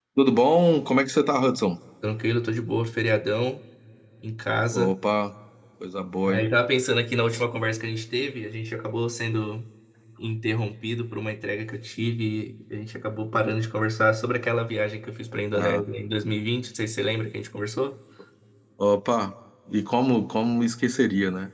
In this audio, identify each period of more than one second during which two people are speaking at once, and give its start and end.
none

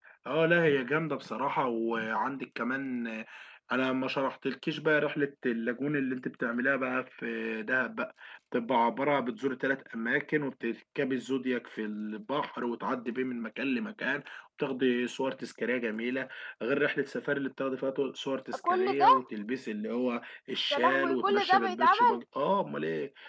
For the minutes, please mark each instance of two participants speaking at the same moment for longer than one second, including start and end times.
20.7-22.2

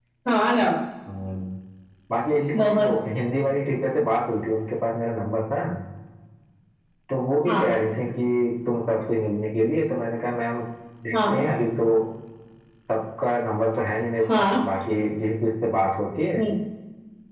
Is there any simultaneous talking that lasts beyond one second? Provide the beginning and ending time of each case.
none

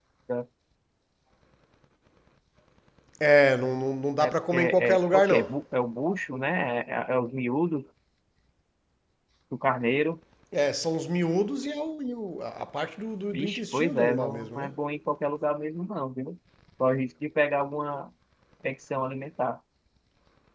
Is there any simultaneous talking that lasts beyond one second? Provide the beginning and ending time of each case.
4.2-5.5, 13.3-14.7

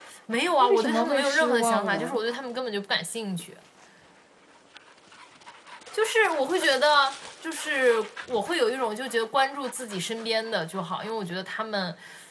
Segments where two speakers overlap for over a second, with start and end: 0.6-2.2

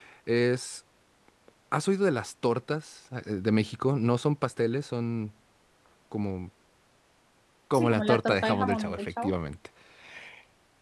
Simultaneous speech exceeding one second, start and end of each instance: 7.7-9.3

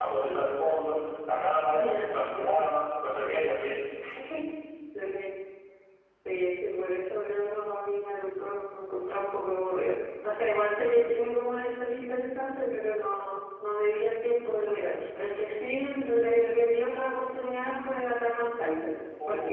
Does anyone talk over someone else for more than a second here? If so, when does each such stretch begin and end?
none

